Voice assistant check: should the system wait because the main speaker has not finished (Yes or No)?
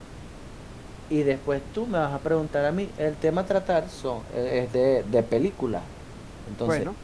Yes